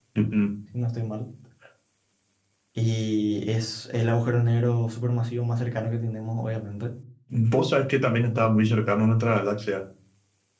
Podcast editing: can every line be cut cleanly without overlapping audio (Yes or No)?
Yes